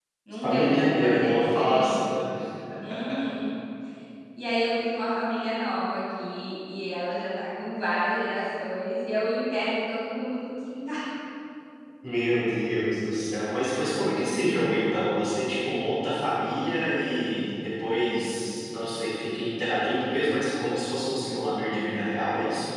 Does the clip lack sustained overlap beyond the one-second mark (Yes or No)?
No